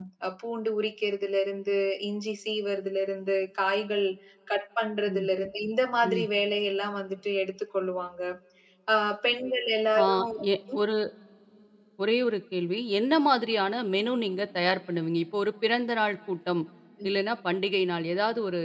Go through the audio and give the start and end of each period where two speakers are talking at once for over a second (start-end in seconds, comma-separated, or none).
none